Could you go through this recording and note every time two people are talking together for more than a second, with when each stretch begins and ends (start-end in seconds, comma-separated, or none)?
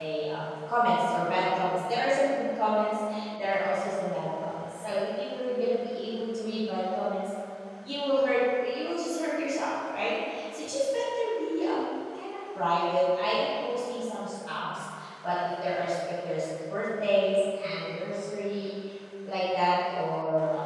none